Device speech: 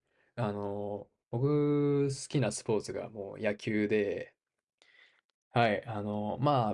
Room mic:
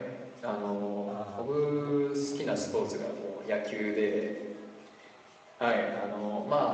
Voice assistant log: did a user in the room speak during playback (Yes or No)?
Yes